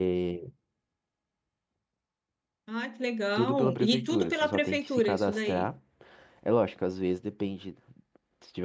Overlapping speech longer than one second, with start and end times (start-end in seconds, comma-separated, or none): 3.4-5.7